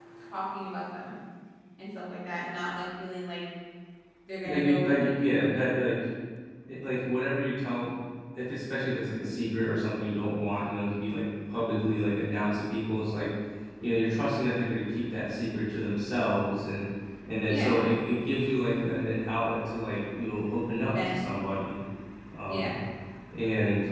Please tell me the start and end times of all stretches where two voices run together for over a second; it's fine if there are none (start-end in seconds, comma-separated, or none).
4.4-5.6